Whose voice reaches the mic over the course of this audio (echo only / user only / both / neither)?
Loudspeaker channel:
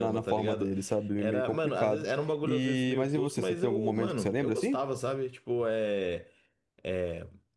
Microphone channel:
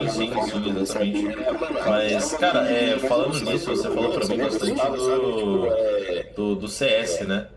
both